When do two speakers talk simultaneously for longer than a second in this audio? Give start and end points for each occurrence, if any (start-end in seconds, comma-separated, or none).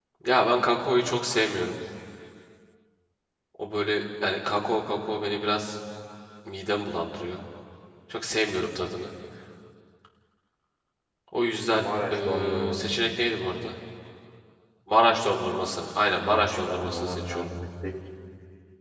11.7-13.0, 16.1-17.5